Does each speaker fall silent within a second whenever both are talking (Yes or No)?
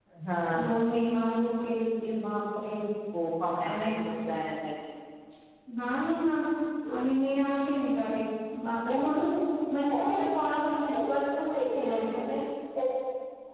Yes